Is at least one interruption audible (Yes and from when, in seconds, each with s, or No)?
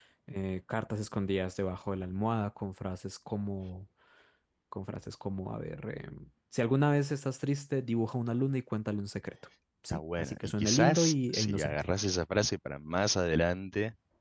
Yes, from 9.9 s